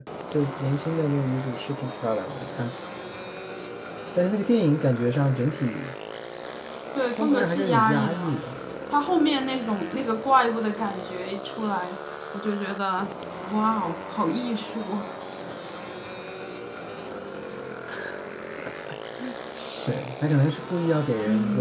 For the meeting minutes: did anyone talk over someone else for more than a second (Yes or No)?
Yes